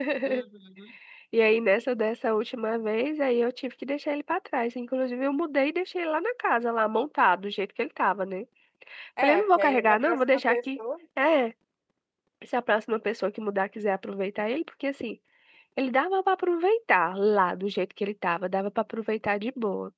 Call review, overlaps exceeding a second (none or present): present